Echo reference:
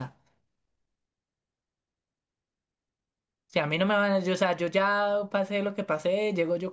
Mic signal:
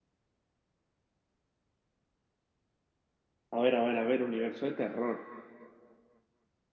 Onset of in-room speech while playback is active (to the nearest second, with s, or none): 4 s